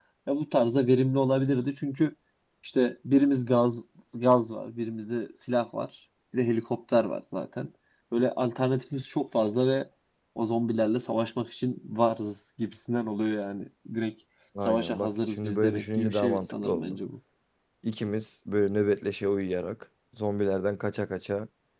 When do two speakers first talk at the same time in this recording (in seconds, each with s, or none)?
14.6 s